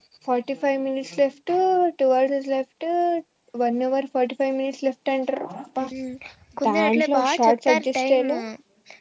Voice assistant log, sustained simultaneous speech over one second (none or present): present